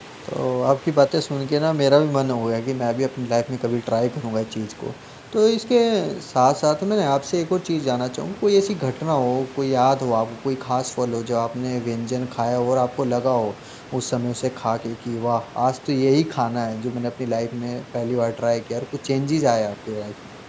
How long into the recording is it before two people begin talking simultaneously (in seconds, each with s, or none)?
none